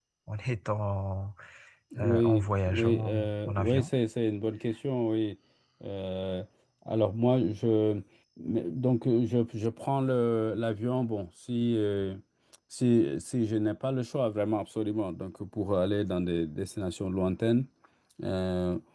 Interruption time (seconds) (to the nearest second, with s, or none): 2 s